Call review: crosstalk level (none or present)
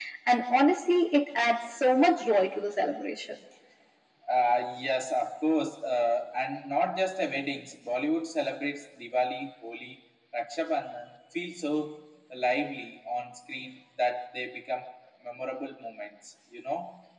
none